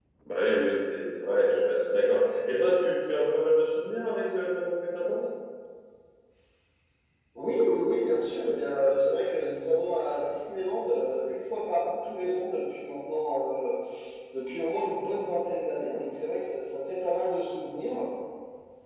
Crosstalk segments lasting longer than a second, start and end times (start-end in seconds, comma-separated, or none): none